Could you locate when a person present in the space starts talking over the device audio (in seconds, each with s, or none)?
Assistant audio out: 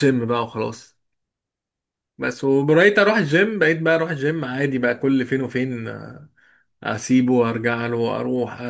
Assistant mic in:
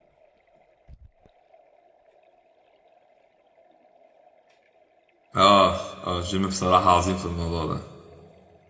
5.4 s